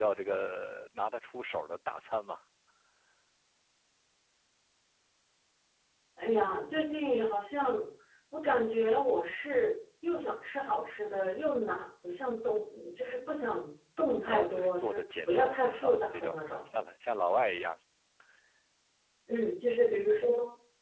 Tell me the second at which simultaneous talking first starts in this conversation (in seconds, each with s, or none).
14.2 s